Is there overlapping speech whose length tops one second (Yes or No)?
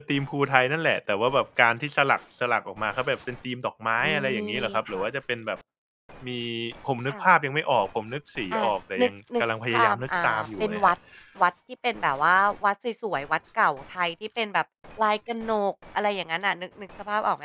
Yes